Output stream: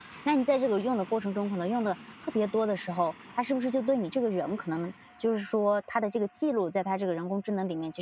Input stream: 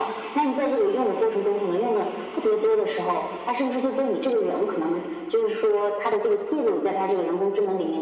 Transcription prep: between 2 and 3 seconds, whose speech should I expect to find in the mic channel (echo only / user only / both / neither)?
echo only